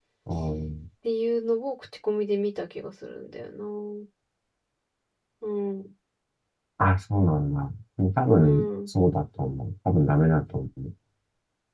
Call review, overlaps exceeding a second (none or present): none